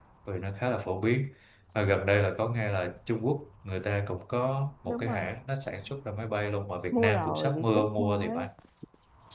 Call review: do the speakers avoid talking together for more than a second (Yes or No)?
No